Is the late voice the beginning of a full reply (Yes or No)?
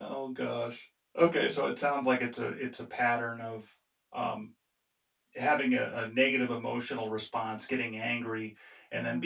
No